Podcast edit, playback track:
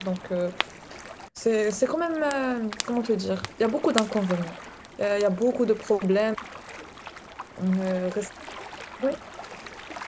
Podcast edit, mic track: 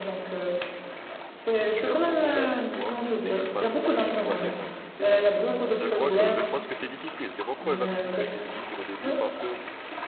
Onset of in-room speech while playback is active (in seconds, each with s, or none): 1.6 s